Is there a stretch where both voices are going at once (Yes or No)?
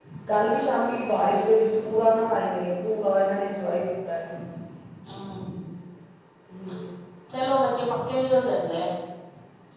No